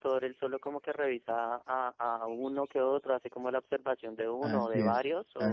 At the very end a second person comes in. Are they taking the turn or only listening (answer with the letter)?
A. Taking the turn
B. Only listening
A